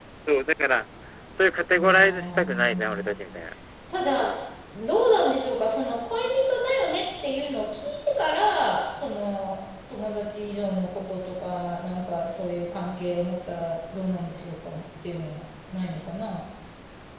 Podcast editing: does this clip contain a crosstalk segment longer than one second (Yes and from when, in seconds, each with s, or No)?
Yes, from 1.7 s